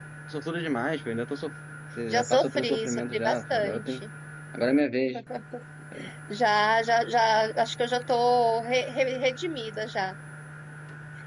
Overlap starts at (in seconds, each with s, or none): 2.1 s